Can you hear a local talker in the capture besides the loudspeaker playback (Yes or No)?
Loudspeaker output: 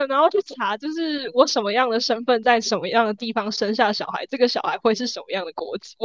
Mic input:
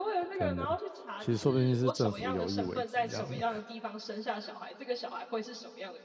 Yes